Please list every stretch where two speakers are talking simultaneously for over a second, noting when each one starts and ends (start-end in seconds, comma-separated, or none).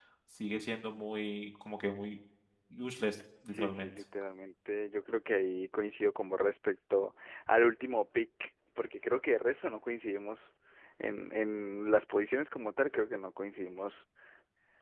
none